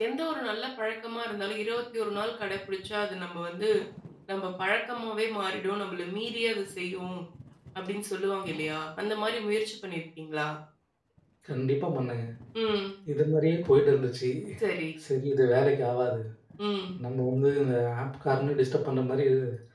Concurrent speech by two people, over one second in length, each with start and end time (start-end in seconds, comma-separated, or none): none